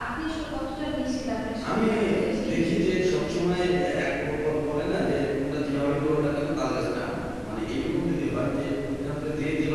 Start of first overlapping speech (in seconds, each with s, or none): 1.6 s